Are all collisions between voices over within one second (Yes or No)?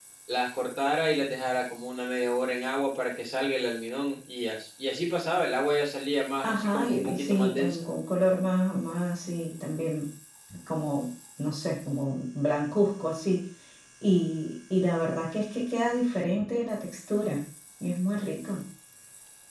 No